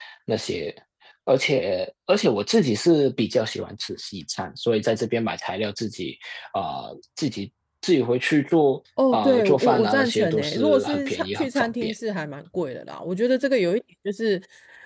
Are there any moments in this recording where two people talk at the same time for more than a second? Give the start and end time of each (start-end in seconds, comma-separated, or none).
9.1-11.9